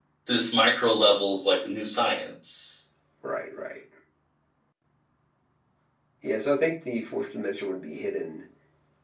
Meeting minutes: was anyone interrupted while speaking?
No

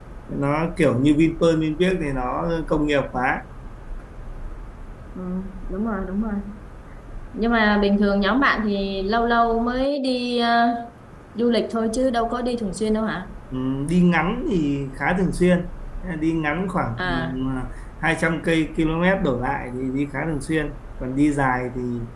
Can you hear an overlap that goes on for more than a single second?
No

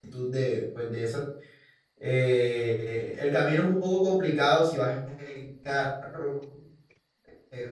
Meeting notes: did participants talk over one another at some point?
No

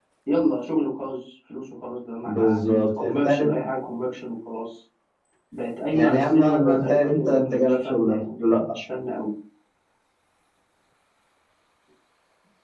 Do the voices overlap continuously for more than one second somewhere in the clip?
Yes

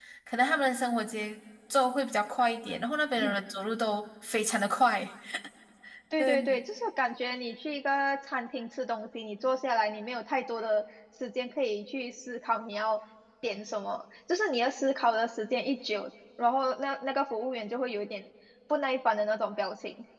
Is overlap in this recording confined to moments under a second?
Yes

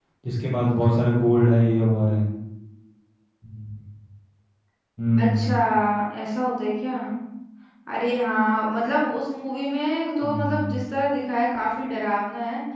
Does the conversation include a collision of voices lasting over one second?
No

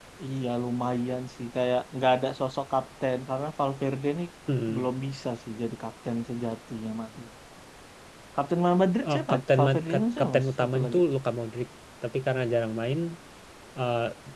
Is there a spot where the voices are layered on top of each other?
Yes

